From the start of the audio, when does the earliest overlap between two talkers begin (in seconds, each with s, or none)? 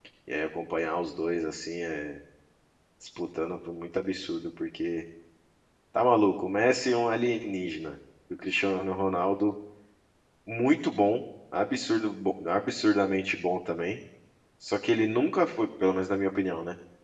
none